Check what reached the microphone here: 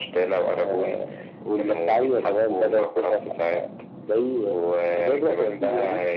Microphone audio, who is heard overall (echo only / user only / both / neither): echo only